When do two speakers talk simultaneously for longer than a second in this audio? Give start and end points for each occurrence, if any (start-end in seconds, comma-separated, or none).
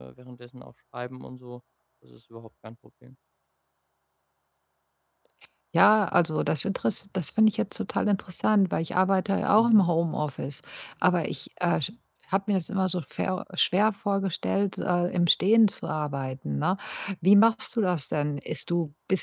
none